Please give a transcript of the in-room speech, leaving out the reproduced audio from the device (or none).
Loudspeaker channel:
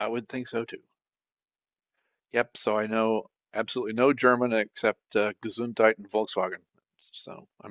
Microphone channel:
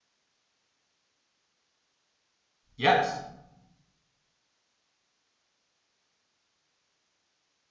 Yes.